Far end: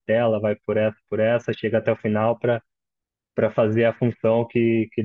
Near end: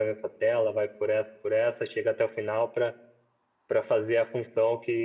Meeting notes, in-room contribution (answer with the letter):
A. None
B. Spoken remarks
A